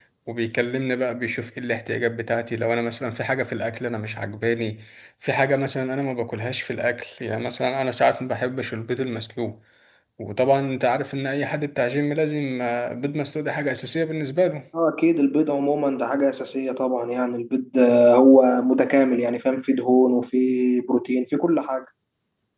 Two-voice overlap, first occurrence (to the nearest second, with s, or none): none